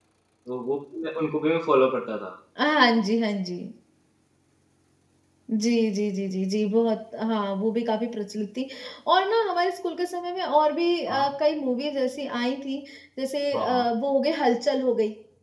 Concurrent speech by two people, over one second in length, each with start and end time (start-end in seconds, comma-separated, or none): none